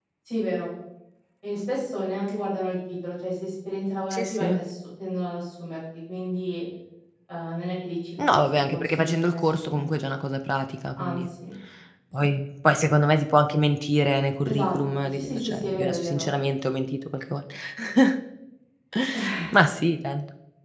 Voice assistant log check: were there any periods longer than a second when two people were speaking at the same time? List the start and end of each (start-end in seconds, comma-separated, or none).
8.2-9.9, 14.4-16.3